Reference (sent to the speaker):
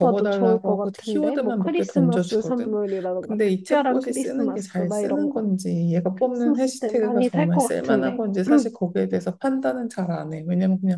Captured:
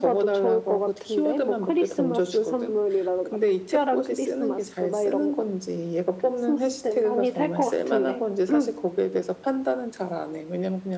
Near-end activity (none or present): none